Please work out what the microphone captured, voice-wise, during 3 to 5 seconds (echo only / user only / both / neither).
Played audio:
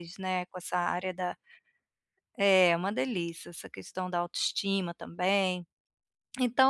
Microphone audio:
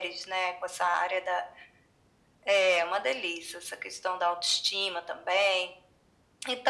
echo only